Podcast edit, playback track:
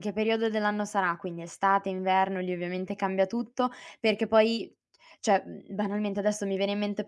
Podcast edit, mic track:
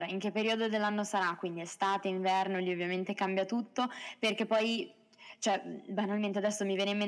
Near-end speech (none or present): none